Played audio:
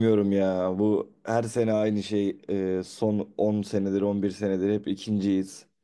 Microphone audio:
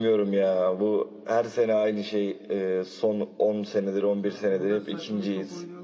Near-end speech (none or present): present